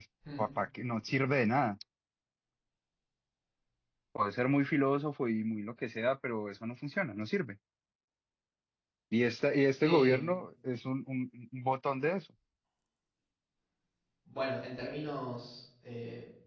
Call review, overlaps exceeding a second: none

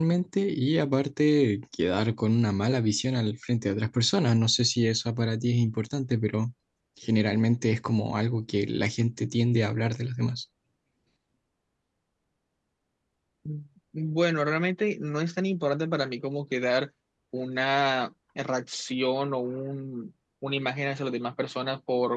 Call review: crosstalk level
none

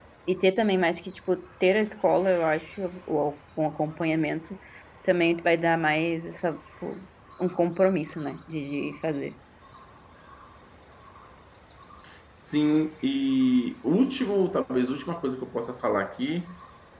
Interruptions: none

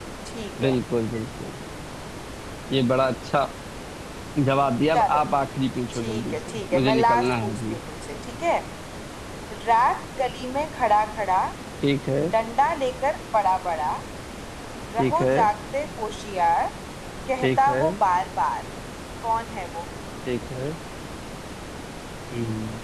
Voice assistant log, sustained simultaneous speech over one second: present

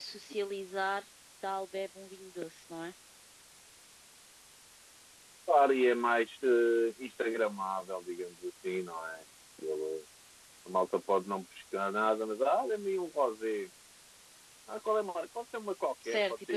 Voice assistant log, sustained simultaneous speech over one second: none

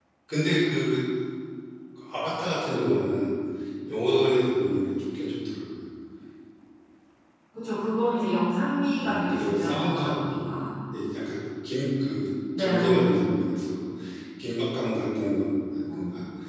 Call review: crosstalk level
present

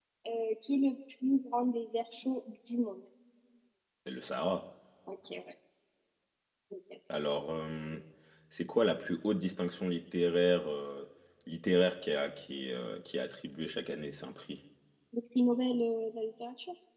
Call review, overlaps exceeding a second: none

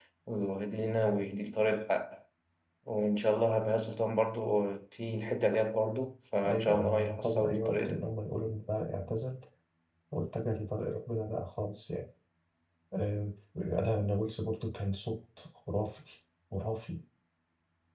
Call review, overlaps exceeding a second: present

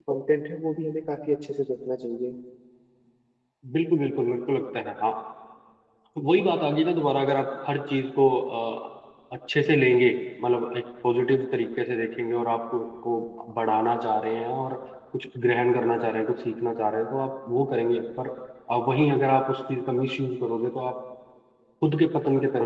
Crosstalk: none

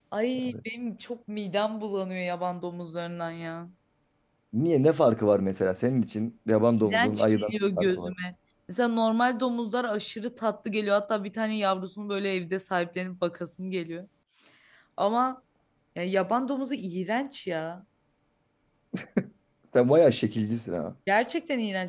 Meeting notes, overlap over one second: present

